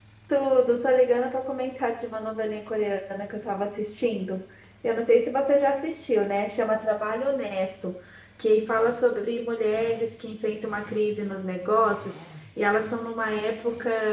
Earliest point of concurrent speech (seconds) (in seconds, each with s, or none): none